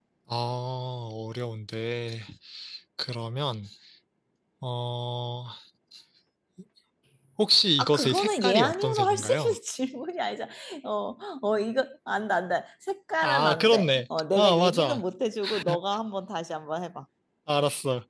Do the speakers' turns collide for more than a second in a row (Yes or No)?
Yes